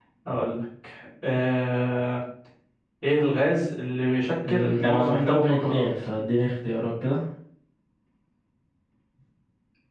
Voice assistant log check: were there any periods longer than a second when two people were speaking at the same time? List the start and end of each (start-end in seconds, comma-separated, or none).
4.5-5.9